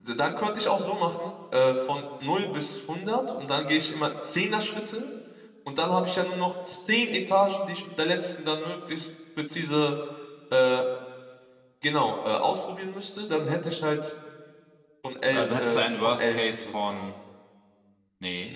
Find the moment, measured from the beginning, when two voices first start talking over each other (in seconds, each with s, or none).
15.3 s